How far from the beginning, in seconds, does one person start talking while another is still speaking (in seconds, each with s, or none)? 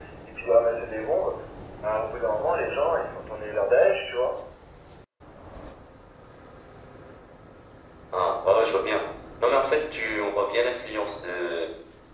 none